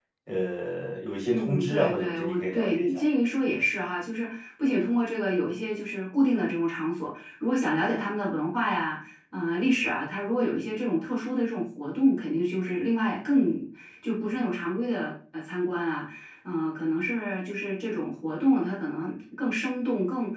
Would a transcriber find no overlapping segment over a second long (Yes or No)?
No